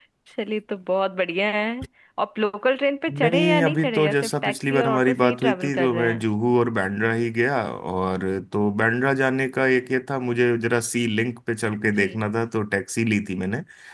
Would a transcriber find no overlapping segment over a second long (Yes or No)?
No